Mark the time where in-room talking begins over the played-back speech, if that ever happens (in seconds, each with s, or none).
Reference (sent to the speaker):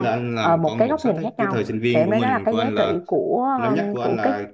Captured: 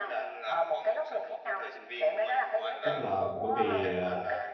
2.8 s